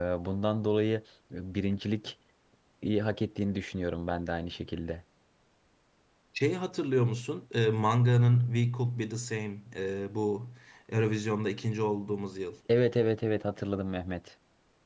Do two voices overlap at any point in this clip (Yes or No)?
No